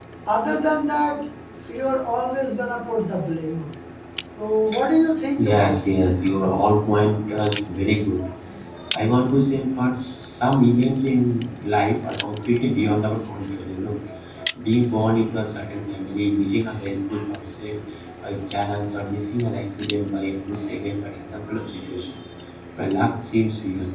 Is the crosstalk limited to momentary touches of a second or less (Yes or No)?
Yes